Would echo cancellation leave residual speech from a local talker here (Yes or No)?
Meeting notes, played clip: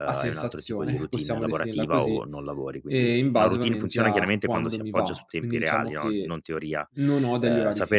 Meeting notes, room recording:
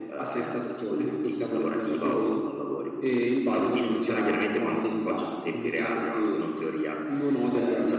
No